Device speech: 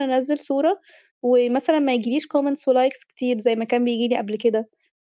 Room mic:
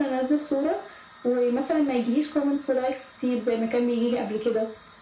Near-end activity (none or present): none